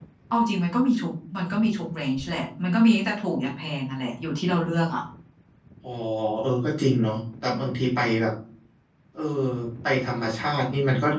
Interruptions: none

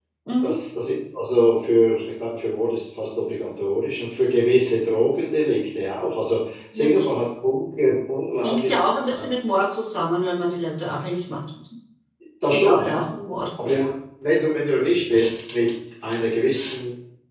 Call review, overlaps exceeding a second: none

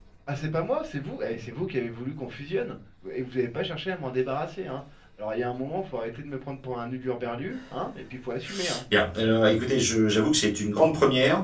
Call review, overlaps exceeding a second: none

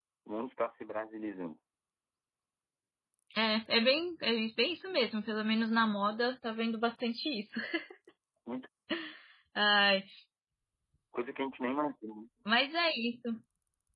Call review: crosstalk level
none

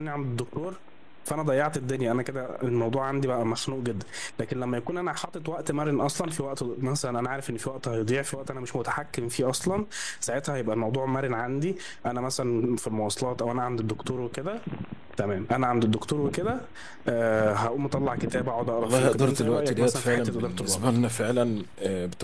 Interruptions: present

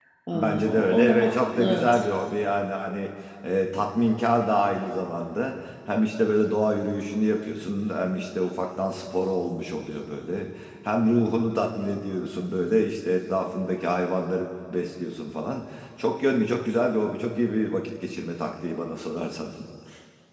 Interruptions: present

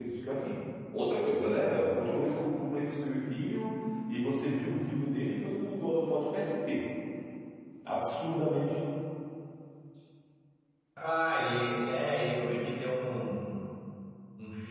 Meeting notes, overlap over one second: none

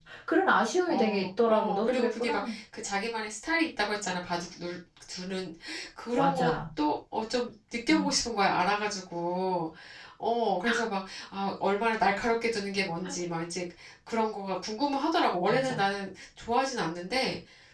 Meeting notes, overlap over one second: present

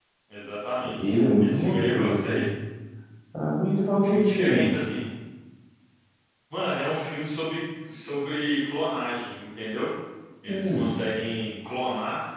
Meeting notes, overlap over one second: present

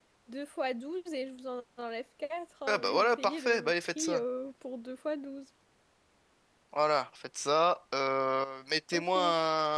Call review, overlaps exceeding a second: present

